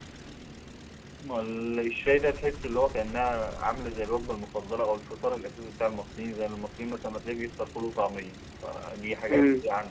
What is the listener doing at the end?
listening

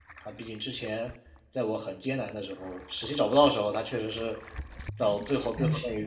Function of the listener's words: listening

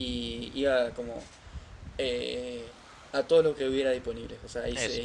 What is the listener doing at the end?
listening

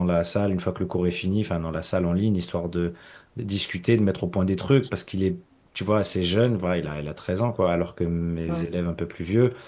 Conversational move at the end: listening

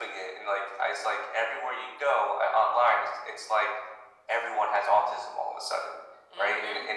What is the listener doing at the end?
listening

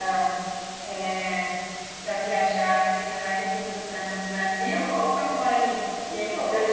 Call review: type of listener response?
listening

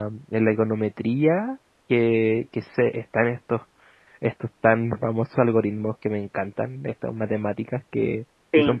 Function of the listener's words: listening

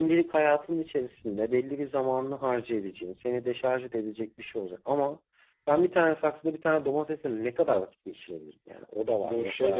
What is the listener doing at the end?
taking over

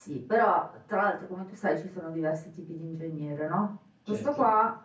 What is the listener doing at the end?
listening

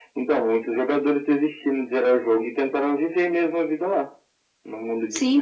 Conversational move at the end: taking over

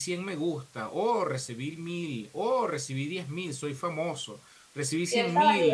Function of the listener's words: taking over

